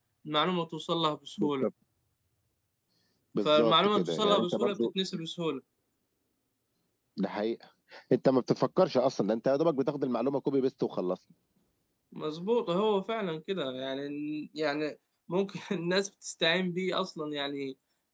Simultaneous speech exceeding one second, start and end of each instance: 3.5-4.8

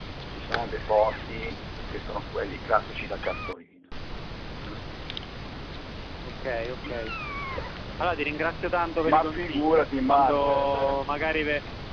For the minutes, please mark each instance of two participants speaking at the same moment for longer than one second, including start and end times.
9.1-11.0

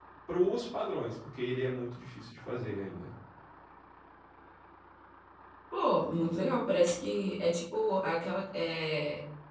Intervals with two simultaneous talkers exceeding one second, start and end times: none

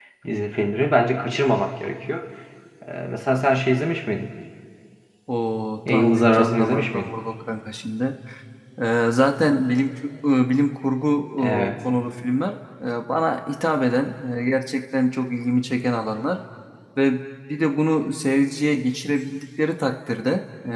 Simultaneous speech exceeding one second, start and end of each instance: 5.9-7.1

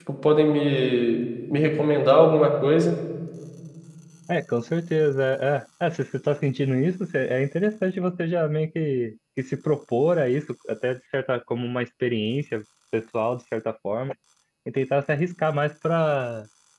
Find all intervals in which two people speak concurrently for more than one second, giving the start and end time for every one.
none

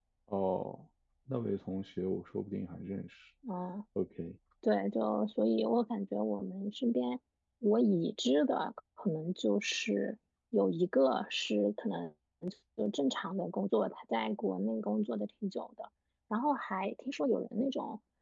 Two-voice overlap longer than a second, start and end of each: none

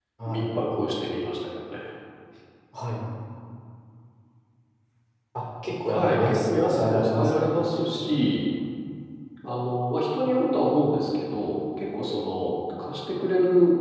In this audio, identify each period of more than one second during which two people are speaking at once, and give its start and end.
5.9-7.6

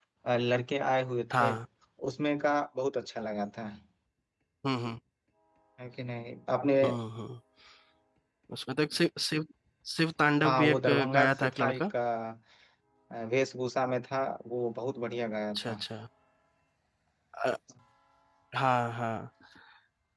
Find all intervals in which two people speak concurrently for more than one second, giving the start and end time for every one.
10.4-11.9

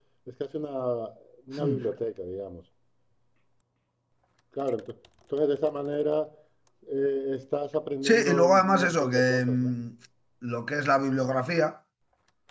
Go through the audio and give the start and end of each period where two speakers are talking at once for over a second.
8.0-9.7

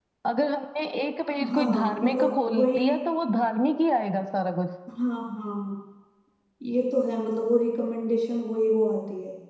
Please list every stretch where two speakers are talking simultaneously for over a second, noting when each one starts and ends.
1.5-2.9

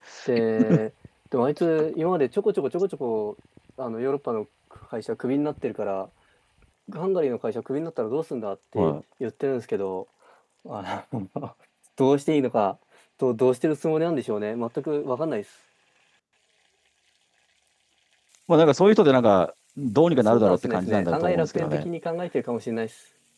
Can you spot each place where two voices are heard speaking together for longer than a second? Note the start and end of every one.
20.2-21.8

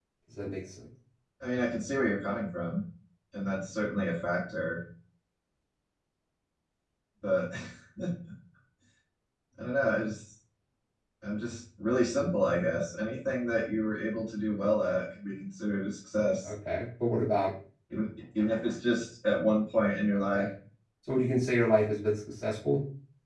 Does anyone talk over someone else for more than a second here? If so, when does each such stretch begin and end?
none

